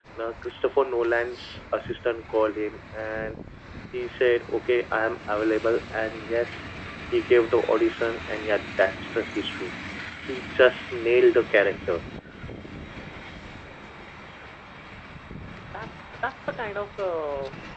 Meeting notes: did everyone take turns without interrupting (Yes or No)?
Yes